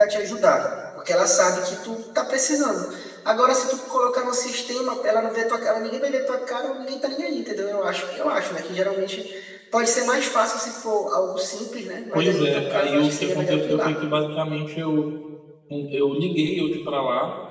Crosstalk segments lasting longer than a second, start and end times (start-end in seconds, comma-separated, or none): 12.1-13.9